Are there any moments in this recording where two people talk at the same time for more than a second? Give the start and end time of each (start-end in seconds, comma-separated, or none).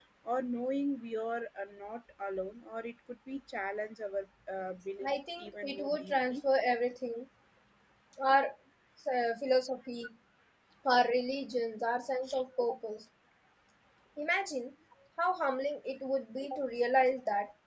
5.0-6.4